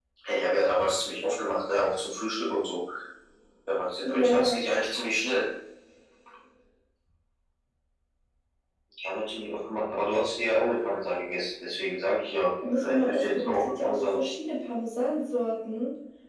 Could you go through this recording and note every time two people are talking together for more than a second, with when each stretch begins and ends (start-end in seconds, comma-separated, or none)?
12.8-14.3